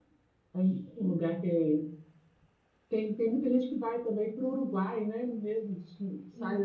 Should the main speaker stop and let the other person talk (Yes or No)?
No